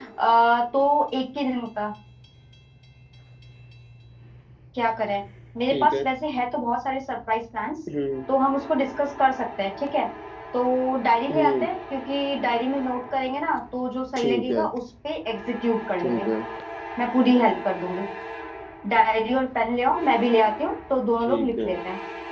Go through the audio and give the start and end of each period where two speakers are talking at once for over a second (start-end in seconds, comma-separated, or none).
none